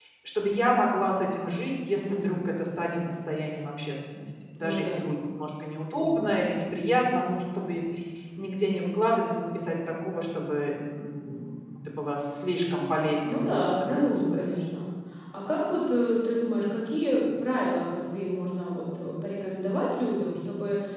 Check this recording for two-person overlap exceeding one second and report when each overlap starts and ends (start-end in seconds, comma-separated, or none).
13.3-14.5